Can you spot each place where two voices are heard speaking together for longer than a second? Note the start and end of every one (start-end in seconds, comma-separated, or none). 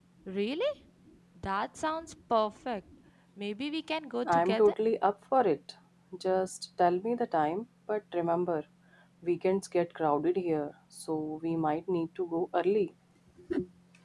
none